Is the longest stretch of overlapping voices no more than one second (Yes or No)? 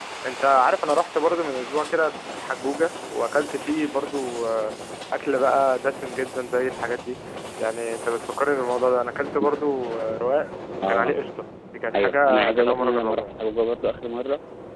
No